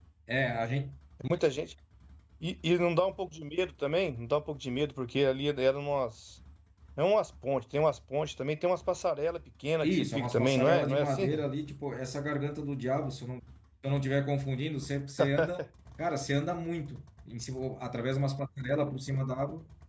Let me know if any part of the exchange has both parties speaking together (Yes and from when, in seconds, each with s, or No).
Yes, from 9.8 s